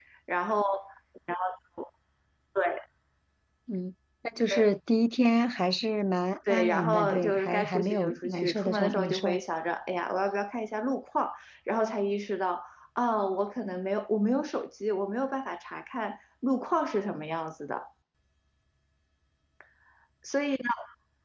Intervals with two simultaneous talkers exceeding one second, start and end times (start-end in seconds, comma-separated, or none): 6.5-9.4